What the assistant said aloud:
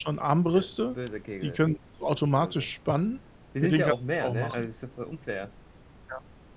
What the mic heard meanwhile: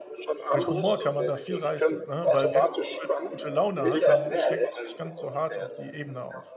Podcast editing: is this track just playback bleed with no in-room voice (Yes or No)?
No